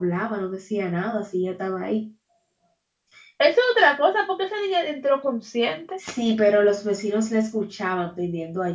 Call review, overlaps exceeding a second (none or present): none